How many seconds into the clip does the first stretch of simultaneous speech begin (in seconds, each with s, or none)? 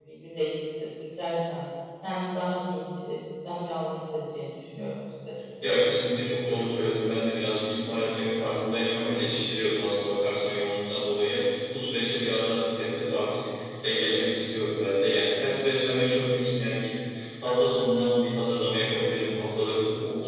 none